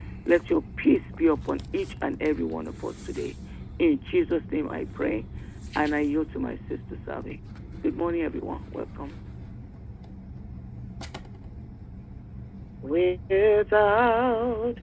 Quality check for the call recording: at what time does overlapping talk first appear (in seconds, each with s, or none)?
none